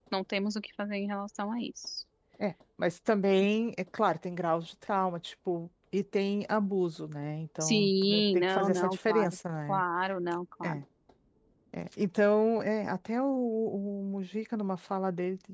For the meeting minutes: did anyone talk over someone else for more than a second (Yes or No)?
Yes